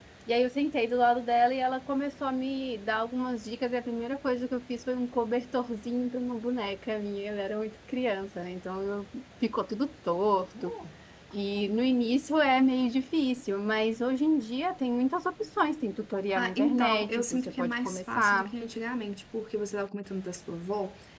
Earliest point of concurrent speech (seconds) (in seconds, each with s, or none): 16.4 s